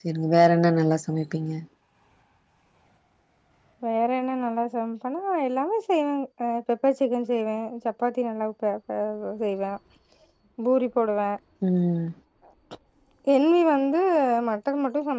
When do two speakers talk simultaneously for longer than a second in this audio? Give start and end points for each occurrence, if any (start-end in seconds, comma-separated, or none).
none